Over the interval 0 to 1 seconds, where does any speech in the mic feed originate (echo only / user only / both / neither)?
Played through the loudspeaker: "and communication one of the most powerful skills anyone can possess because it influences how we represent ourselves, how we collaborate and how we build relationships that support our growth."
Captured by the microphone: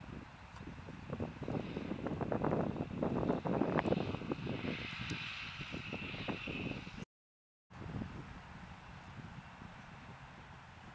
neither